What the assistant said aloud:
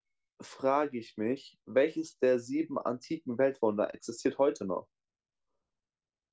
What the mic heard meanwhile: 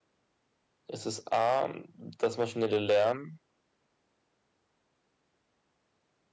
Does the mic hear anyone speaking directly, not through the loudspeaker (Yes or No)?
Yes